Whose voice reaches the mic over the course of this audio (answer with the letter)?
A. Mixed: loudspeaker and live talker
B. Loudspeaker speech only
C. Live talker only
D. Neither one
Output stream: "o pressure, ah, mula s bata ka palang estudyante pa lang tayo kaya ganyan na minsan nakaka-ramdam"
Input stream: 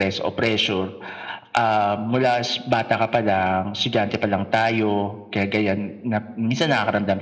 B